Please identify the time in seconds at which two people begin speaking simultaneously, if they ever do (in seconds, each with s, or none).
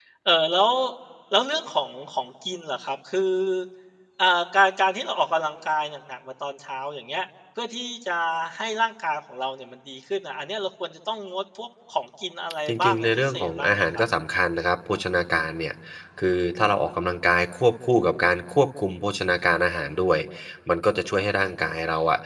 12.7 s